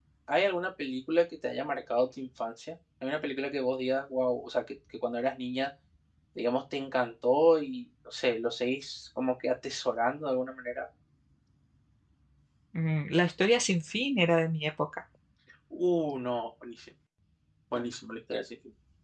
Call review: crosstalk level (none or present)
none